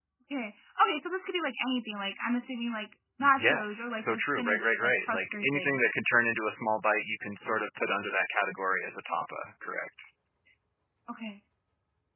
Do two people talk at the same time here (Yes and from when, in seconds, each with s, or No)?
Yes, from 3.2 s